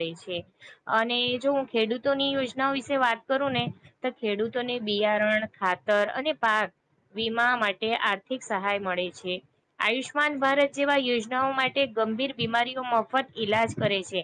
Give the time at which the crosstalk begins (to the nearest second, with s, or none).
none